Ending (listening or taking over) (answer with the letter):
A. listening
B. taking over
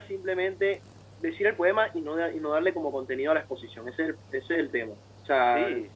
A